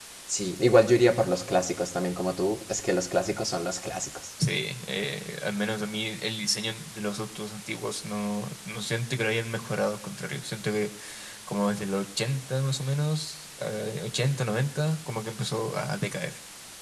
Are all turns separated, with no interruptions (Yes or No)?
Yes